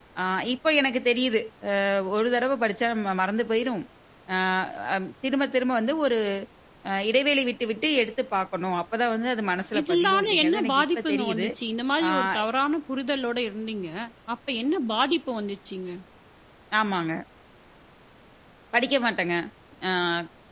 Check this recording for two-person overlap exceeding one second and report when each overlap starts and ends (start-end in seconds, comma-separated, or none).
9.8-11.5